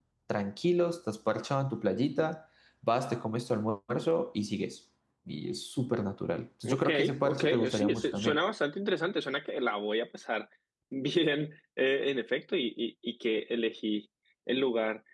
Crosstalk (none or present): present